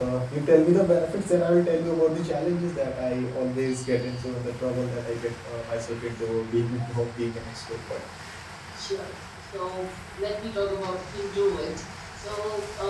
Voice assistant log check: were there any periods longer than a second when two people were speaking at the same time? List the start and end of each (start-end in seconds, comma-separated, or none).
none